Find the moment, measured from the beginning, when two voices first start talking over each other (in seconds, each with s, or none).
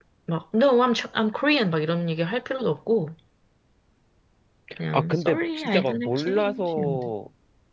4.9 s